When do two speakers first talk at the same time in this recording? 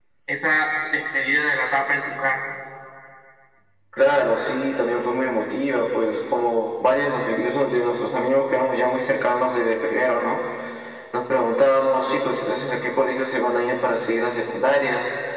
none

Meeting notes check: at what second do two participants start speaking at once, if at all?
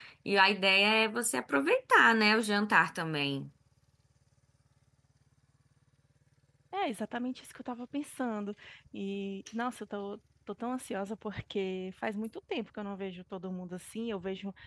none

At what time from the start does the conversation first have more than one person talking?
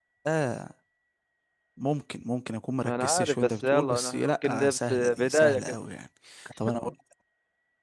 2.8 s

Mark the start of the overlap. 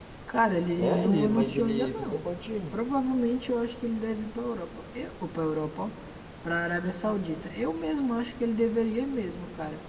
0.8 s

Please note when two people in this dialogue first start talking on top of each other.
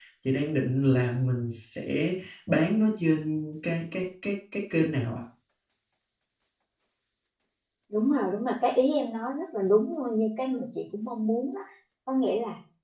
none

